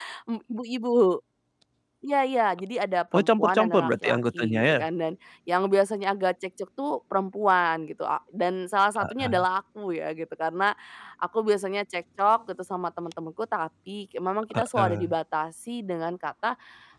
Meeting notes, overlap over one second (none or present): present